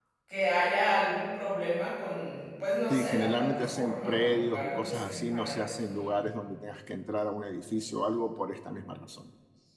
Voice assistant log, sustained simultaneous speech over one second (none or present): present